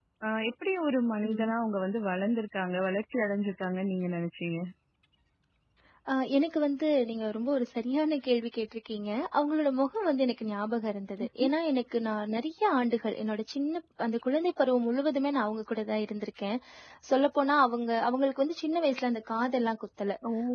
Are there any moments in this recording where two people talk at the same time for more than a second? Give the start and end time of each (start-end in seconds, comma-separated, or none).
none